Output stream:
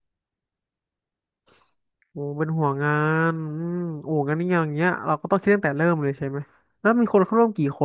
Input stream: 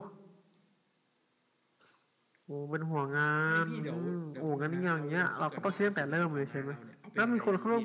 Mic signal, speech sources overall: both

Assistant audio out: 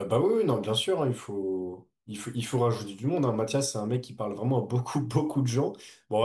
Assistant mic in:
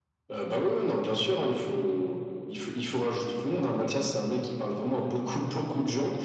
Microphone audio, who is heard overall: echo only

